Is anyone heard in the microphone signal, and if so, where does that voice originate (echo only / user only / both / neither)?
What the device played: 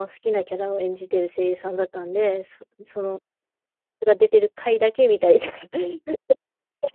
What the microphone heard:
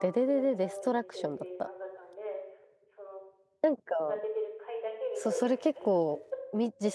both